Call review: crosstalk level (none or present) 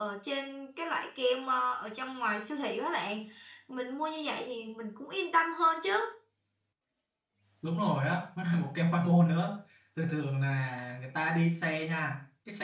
none